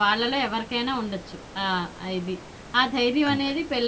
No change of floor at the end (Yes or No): Yes